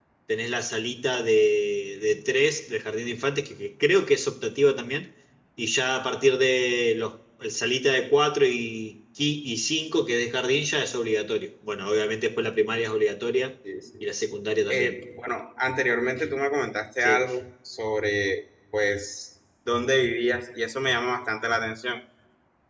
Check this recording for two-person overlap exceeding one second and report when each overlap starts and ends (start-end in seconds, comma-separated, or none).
none